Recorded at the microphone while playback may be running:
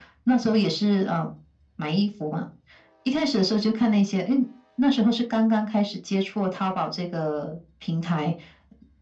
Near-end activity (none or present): none